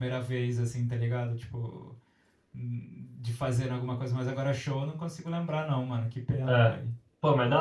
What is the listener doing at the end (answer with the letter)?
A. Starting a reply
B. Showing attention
A